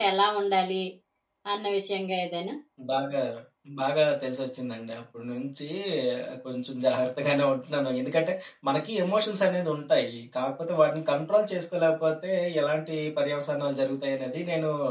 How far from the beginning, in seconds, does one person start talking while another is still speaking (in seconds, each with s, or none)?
none